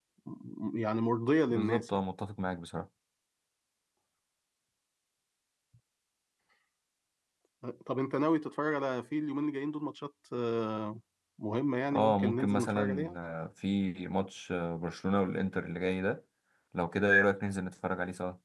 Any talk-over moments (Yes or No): Yes